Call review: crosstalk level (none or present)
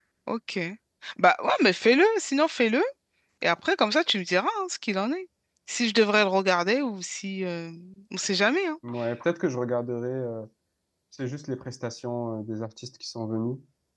none